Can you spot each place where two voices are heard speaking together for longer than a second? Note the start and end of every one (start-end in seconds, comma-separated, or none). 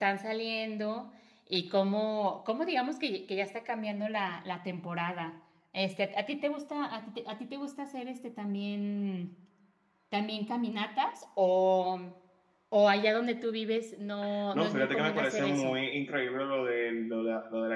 14.5-15.8